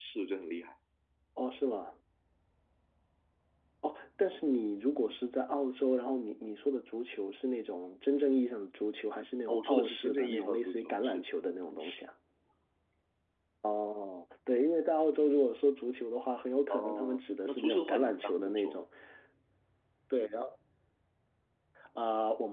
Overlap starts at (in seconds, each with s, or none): 9.5 s